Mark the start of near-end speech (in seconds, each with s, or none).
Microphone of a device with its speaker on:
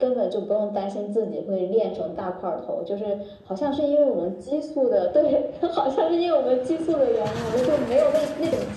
none